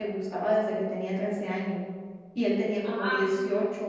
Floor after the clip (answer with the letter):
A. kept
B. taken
A